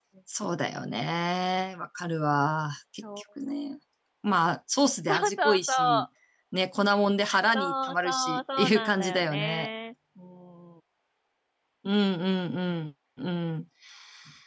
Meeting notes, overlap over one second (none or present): present